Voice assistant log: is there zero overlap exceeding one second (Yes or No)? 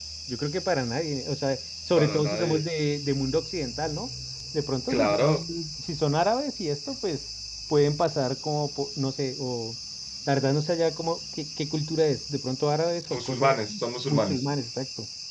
No